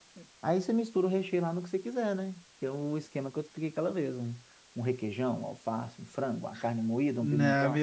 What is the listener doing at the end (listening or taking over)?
taking over